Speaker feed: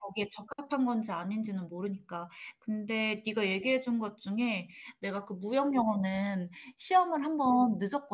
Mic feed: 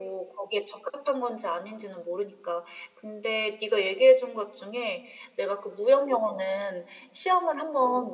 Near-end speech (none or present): none